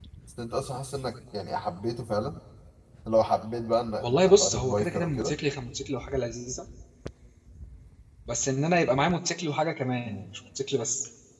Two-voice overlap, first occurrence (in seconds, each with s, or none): 4.0 s